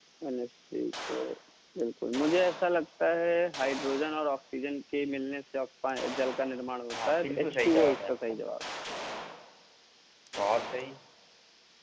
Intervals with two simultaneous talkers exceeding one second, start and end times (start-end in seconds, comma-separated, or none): 7.0-8.3